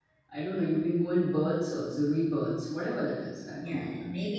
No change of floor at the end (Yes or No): No